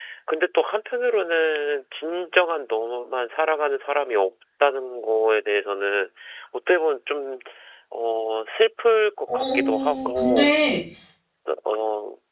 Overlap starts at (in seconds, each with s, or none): 9.3 s